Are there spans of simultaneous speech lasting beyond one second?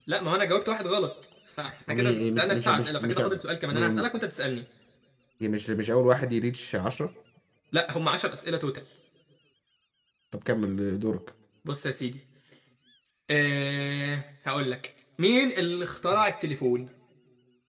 Yes, from 1.9 s

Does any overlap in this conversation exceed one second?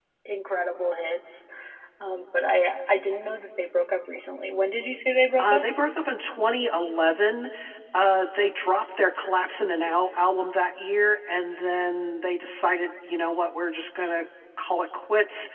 No

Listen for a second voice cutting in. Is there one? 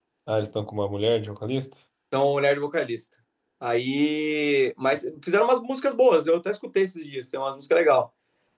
No

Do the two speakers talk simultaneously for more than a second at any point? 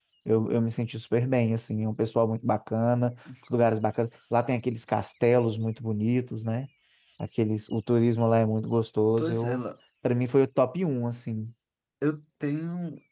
No

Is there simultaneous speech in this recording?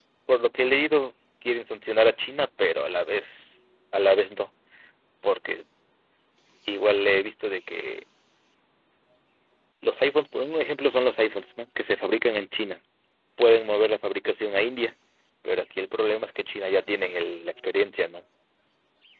No

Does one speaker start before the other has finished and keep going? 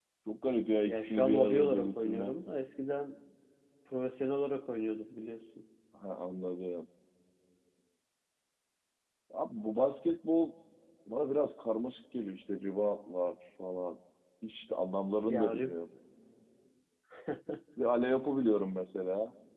Yes, from 0.9 s

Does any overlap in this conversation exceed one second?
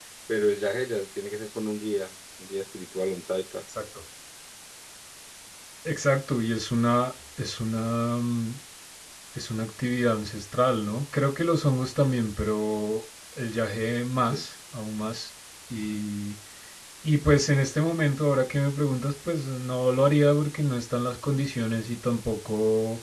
No

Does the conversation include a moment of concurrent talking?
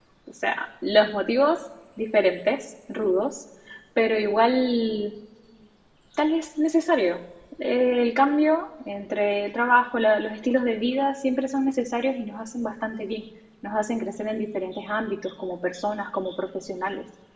No

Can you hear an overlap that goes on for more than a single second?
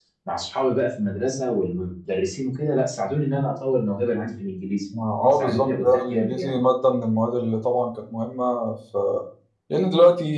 Yes, from 5.3 s

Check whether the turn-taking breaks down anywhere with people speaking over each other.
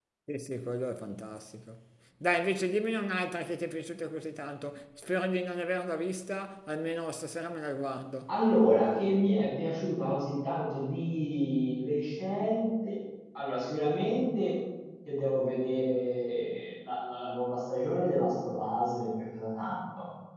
No

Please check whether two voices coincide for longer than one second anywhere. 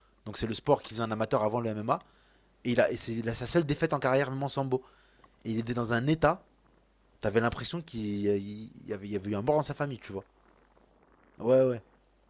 No

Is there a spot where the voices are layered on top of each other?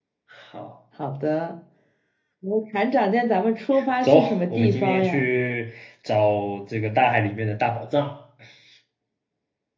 Yes, from 4.0 s

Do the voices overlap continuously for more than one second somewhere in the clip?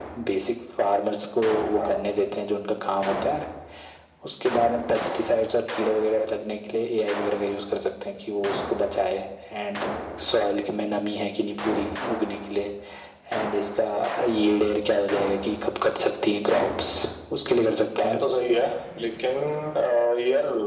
No

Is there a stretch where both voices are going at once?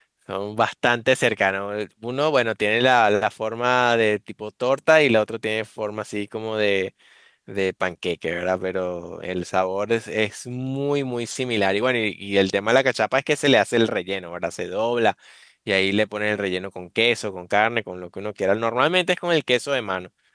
No

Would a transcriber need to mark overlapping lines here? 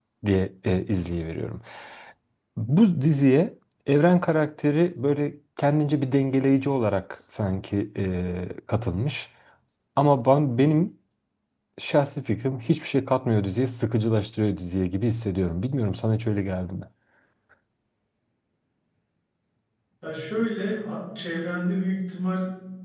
No

